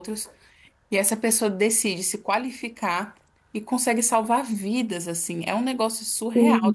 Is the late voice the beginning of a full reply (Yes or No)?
No